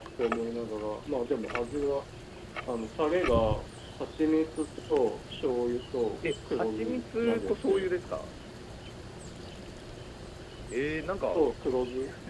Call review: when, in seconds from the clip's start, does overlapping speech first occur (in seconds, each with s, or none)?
6.5 s